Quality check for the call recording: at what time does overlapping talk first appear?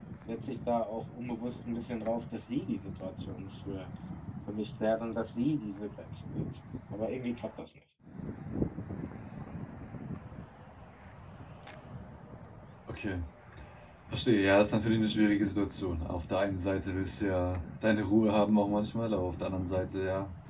none

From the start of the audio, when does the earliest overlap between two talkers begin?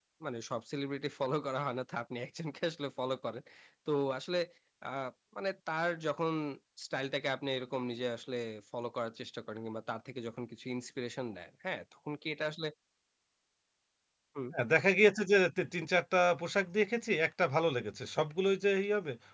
none

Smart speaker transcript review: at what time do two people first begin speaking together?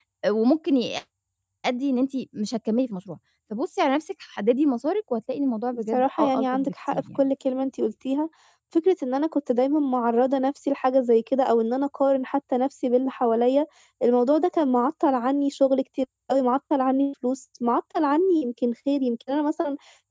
5.9 s

